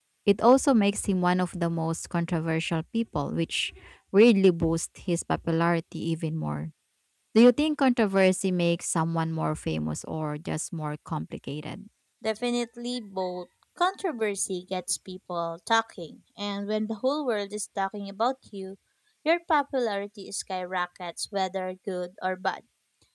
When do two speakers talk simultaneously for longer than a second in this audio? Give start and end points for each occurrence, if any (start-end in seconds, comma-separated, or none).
none